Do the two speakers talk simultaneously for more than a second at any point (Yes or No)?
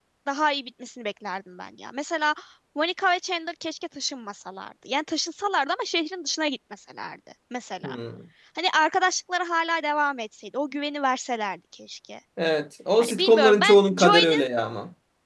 Yes